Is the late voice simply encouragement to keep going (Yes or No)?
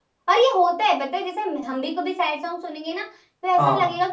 Yes